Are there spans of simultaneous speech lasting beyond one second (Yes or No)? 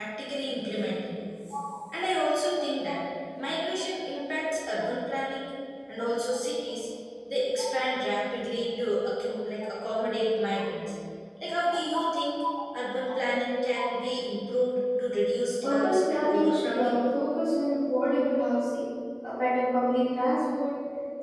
Yes